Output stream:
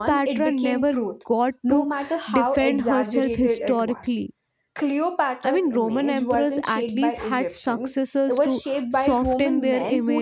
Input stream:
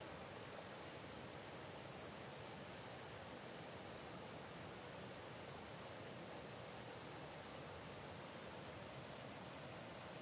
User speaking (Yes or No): No